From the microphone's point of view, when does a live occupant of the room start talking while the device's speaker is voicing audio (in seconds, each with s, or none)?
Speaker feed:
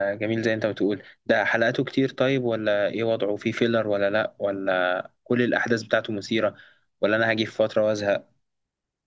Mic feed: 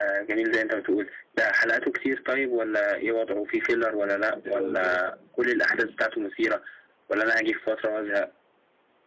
4.0 s